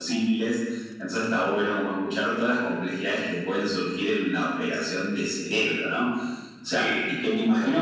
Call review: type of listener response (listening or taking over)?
listening